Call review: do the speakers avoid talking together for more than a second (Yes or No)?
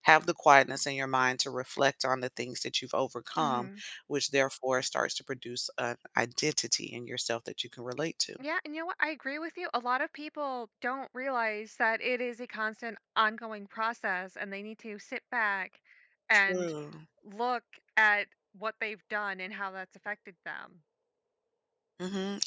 Yes